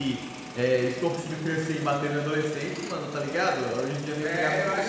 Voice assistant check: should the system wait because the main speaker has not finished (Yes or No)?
No